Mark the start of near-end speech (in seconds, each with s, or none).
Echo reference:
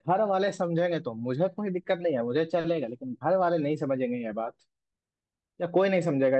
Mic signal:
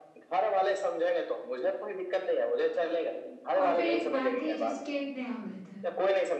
3.6 s